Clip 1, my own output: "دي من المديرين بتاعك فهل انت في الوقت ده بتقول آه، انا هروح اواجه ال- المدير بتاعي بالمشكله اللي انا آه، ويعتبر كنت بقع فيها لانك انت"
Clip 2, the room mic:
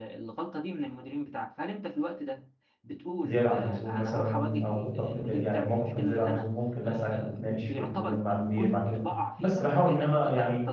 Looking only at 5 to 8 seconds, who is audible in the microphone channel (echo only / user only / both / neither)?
both